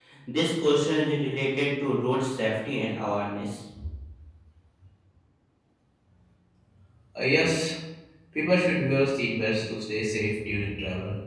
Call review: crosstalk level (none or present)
none